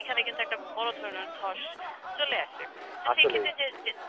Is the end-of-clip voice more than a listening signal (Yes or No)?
No